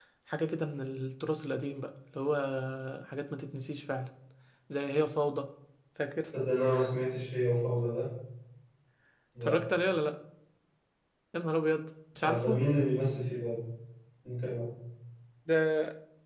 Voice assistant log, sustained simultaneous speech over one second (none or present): none